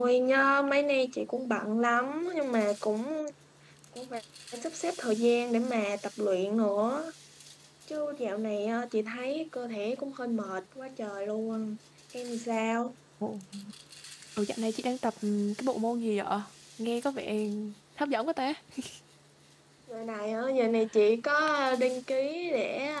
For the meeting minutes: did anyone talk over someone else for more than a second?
No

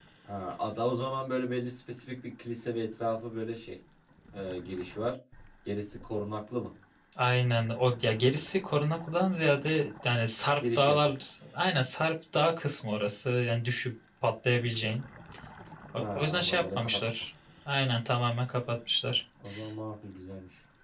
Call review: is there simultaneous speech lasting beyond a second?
Yes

